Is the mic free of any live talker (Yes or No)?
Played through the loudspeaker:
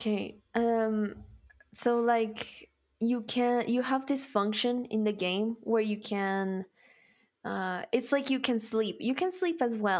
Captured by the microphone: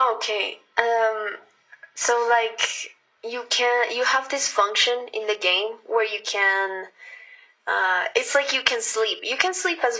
Yes